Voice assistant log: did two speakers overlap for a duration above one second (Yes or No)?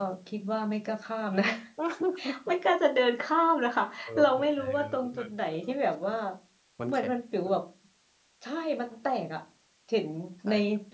Yes